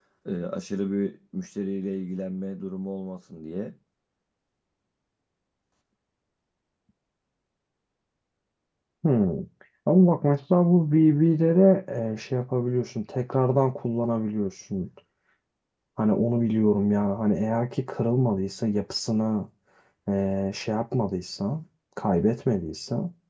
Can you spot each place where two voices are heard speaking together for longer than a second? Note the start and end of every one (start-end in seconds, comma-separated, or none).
none